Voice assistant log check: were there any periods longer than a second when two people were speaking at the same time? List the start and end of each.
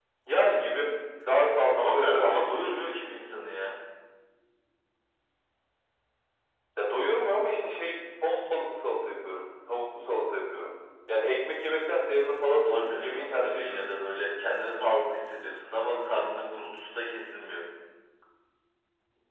1.6-2.9, 12.6-13.8

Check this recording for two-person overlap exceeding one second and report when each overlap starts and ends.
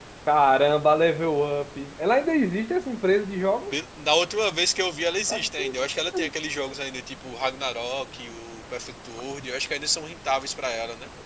none

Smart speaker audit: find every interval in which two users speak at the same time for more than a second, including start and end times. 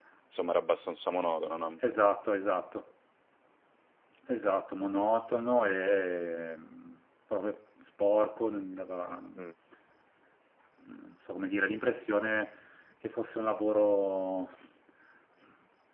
none

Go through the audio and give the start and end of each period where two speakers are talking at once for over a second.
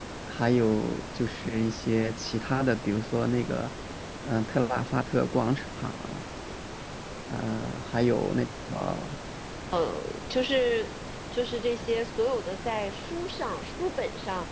none

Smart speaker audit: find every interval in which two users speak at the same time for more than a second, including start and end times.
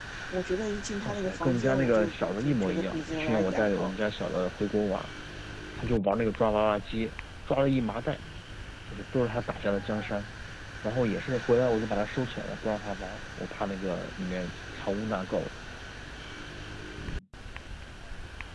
1.0-3.9

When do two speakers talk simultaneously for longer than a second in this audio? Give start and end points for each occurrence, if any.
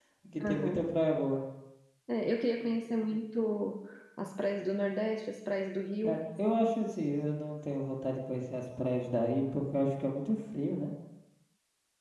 none

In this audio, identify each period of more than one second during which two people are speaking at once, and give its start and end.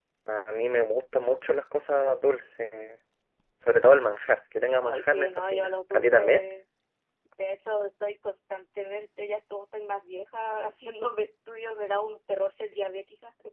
4.8-6.4

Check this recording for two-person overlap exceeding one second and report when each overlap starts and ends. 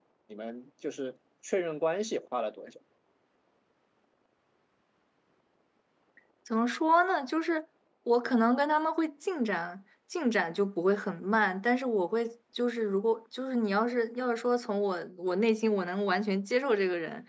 none

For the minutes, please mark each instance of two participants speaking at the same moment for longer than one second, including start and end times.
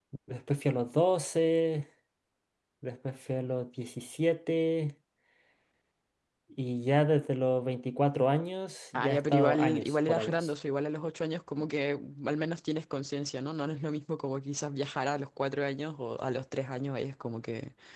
8.9-10.5

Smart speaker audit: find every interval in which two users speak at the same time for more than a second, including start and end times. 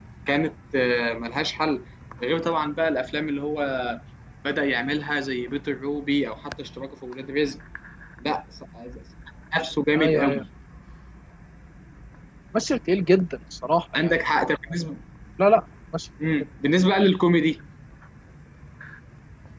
none

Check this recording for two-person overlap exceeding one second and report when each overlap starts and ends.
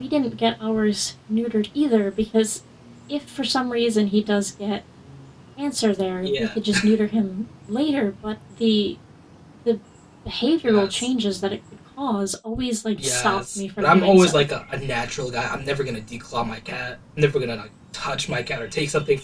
13.0-14.4

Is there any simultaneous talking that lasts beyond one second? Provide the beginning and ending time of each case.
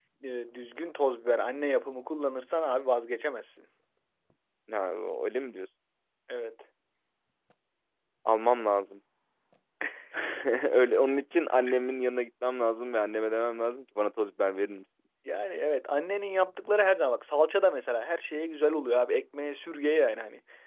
none

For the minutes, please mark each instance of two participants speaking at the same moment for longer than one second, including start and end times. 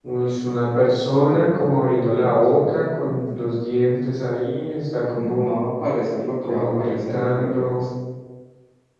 1.3-3.4, 6.5-7.8

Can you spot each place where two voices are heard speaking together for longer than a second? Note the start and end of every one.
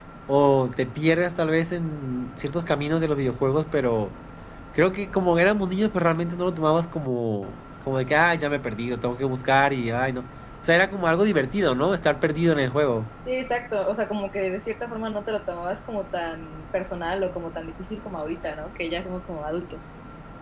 none

